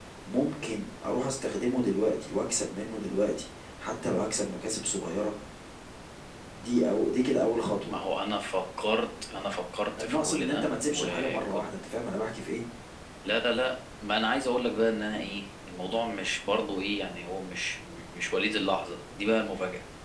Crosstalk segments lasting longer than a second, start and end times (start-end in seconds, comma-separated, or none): 10.0-11.6